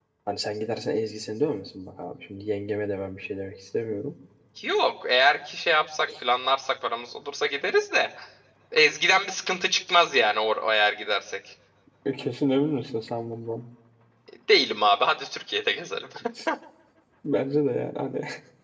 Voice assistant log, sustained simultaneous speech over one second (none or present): none